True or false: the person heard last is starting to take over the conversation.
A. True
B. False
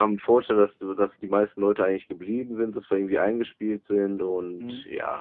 A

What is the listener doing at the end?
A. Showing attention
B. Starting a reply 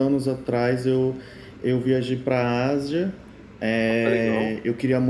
A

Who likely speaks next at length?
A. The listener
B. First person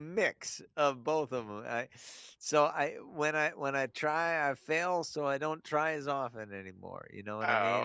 A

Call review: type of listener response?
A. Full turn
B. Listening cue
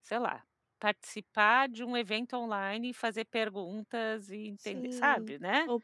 A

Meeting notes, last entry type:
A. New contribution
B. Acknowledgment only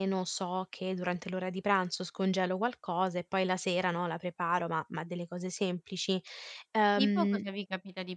A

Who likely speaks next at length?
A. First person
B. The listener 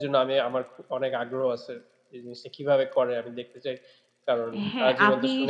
B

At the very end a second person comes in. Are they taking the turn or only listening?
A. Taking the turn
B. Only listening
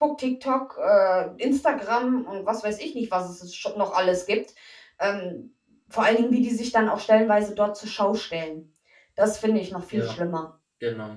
A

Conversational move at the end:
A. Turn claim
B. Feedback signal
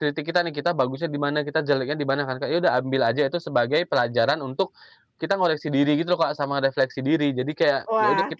A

